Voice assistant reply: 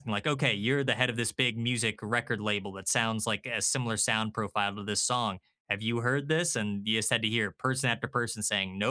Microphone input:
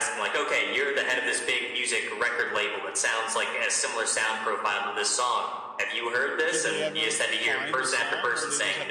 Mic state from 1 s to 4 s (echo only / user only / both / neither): echo only